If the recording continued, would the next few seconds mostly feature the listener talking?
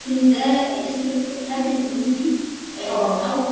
No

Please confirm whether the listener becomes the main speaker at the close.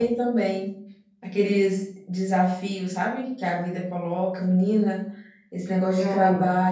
No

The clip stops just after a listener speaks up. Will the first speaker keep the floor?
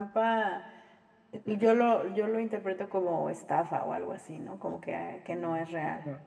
No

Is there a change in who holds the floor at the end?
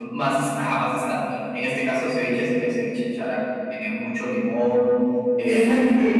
Yes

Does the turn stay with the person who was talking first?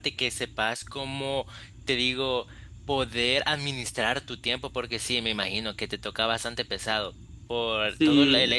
Yes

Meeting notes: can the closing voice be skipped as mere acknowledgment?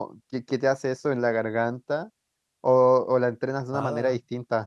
No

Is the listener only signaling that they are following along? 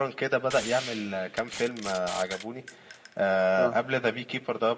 Yes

